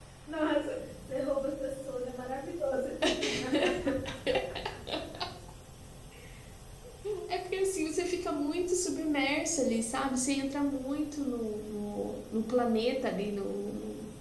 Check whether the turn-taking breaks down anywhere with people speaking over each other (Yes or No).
No